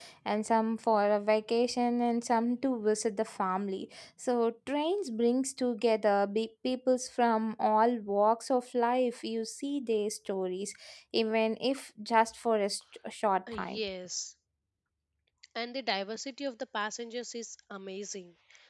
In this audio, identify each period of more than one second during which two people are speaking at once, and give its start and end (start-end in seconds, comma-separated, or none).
none